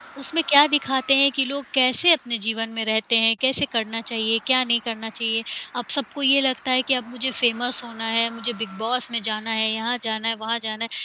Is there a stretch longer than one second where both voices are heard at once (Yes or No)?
No